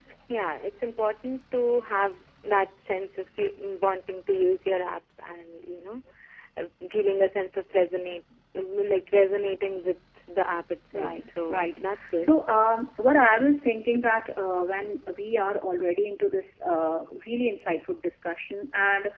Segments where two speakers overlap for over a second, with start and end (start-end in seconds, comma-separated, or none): 10.9-12.3